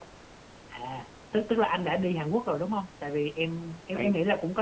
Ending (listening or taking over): listening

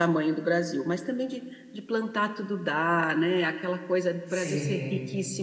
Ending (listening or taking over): listening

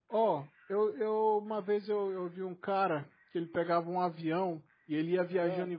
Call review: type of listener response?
listening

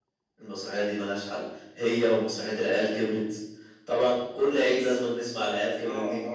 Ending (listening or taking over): taking over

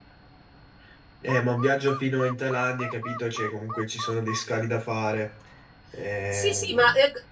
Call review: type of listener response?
taking over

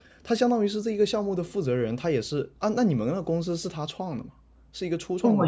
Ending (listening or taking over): taking over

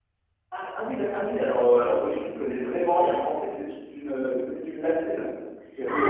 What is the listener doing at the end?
taking over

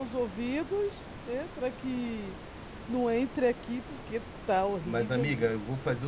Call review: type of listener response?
taking over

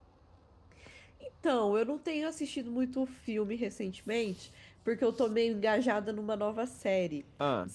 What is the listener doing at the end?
listening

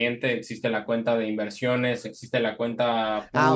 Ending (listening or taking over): taking over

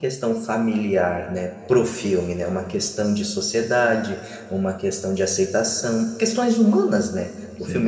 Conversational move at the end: listening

